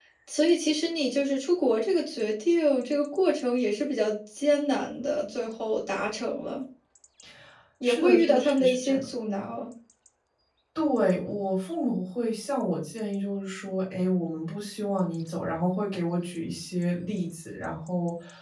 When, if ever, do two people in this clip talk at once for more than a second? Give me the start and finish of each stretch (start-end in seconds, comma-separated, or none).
7.8-9.0